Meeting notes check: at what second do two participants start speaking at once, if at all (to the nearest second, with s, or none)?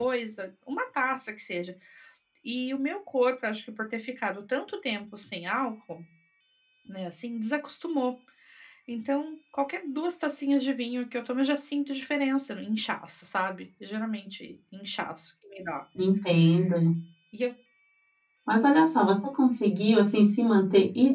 none